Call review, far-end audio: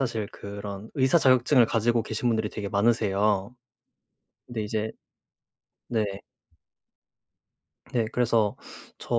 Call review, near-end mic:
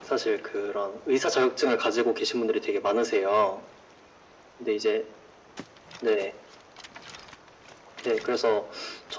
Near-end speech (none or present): none